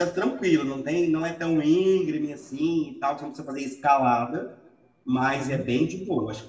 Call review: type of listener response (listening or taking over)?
listening